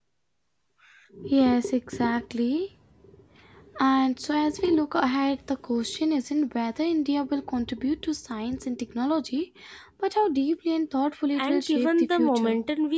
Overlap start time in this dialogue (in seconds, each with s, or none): 11.4 s